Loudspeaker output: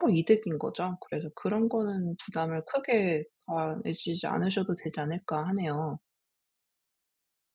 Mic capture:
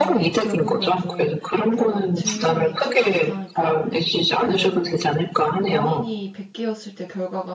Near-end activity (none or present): present